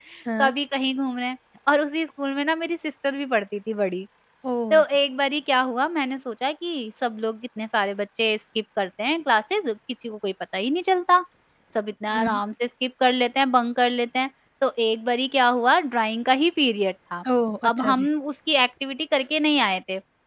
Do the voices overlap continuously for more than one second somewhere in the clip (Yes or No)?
No